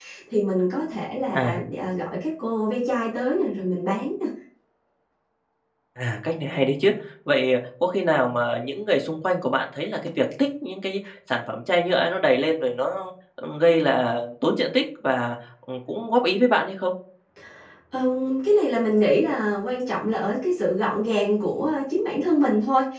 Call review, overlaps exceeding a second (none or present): none